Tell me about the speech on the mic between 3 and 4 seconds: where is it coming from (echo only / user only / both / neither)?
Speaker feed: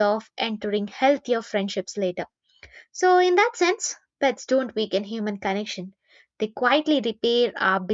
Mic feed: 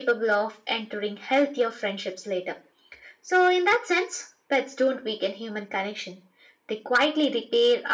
echo only